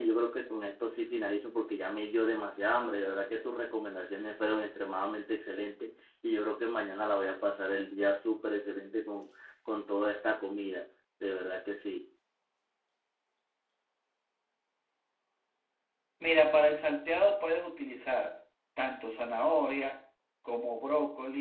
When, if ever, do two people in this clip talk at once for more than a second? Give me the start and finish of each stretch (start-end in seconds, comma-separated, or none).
none